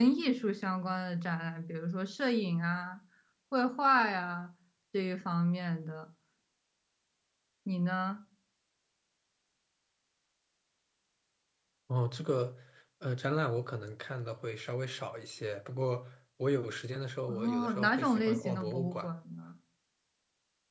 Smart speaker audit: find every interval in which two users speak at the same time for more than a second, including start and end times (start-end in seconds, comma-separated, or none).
17.3-19.1